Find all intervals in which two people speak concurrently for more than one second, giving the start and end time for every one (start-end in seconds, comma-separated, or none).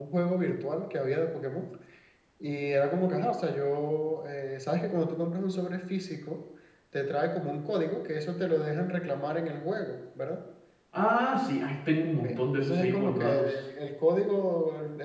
12.2-13.5